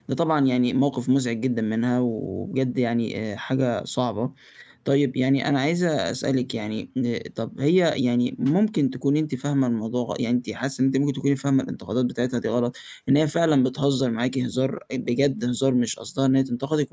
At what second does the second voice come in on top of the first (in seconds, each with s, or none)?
none